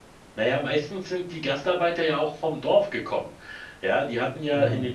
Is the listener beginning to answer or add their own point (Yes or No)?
No